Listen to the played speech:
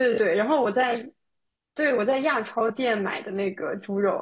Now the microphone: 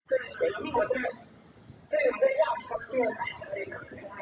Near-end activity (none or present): none